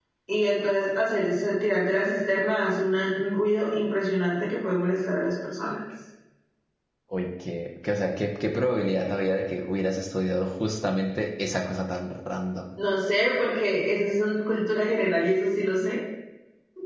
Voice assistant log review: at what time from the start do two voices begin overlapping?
none

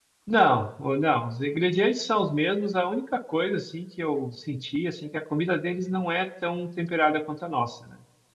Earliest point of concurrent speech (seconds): none

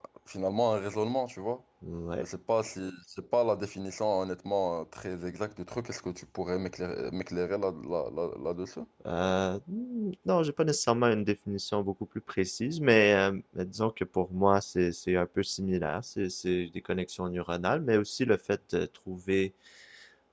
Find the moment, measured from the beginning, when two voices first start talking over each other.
none

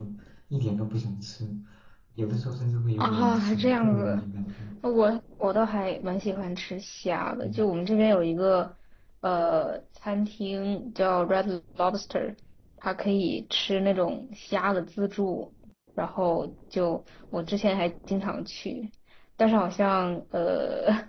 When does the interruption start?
3.0 s

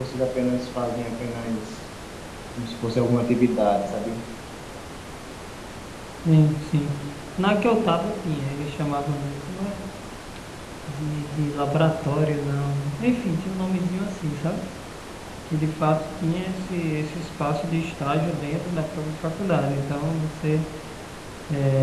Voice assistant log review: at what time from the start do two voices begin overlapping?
none

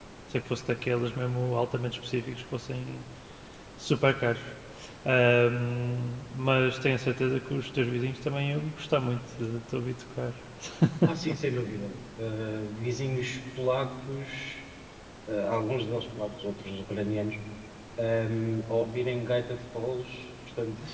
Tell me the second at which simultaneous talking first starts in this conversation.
none

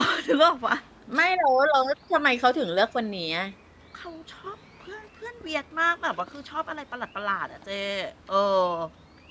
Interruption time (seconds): none

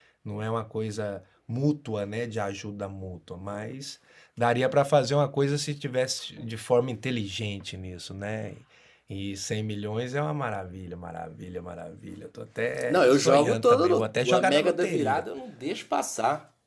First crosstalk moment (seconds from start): 12.9 s

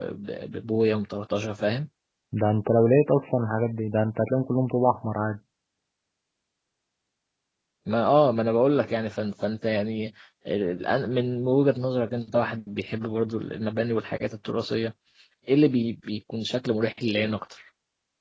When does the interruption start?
none

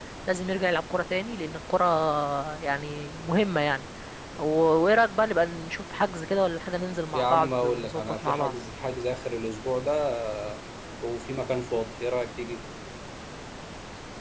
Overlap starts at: 7.1 s

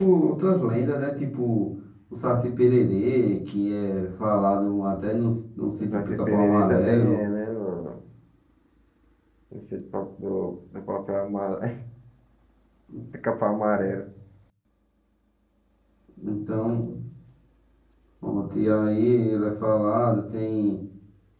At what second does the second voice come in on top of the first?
5.8 s

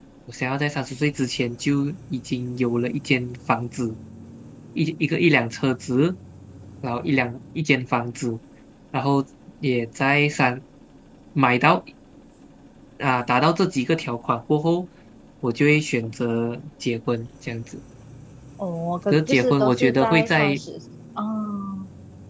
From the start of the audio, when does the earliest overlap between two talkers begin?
19.1 s

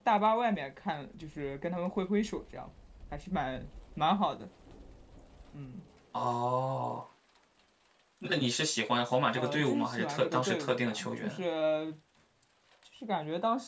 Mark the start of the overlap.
9.4 s

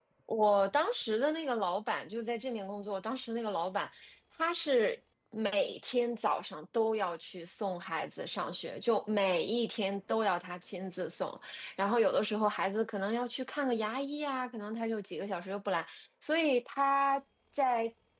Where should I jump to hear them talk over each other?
none

